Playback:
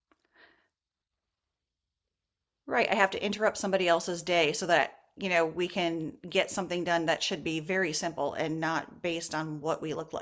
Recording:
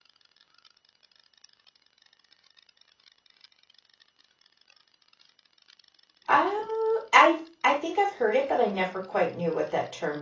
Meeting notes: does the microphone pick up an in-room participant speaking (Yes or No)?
Yes